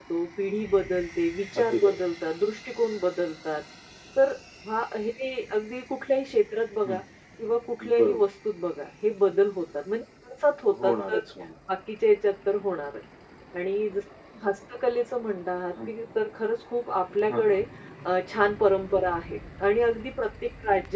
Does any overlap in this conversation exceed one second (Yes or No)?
No